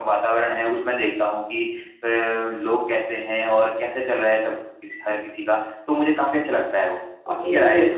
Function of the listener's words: taking over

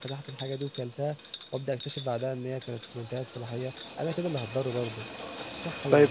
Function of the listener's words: taking over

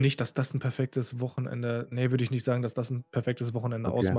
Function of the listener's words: taking over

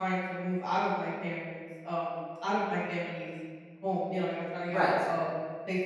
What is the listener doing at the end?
listening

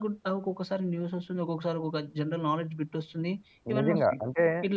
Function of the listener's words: taking over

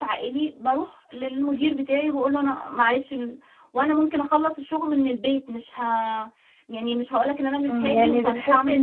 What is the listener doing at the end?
taking over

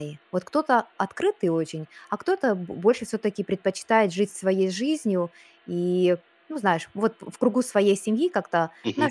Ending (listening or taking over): listening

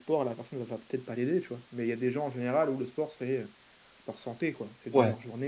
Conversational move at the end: taking over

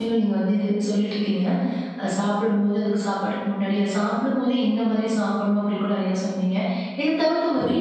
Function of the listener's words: listening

